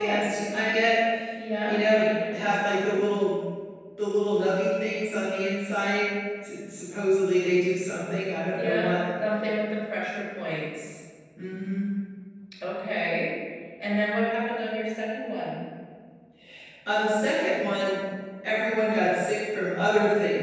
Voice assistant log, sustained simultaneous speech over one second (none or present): present